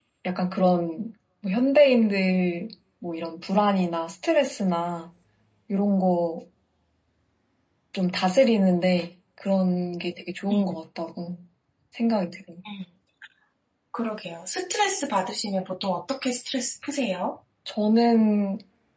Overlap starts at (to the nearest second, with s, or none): none